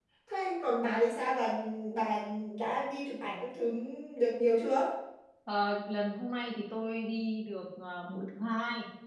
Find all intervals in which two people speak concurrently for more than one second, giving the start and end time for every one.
none

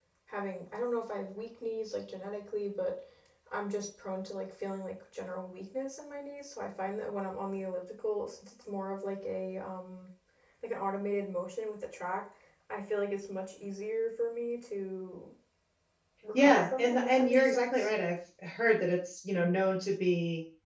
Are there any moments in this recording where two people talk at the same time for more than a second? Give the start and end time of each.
16.3-17.9

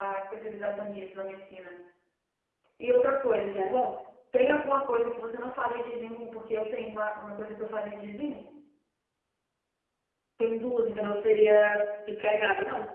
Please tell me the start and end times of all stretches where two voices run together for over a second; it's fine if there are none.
none

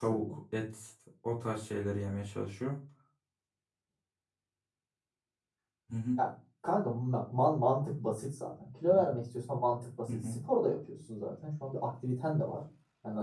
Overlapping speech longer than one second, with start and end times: none

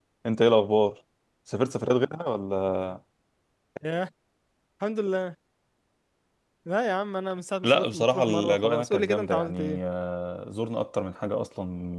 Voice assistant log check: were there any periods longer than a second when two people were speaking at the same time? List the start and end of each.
7.6-9.8

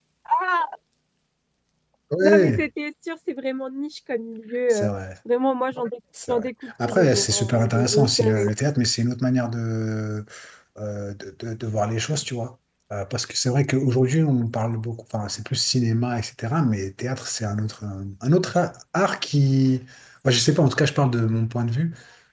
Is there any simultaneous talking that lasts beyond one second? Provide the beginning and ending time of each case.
6.3-8.5

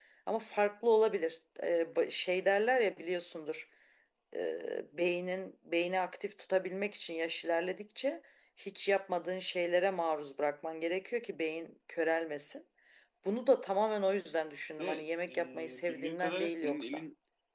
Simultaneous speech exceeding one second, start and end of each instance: 15.3-17.0

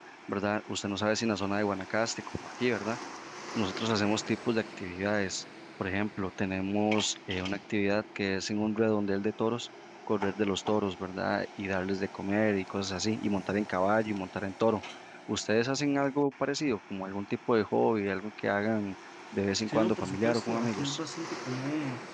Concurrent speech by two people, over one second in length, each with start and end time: 19.7-21.0

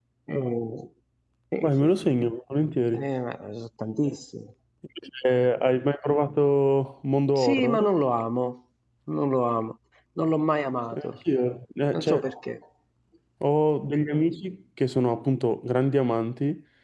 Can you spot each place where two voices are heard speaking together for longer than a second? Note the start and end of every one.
none

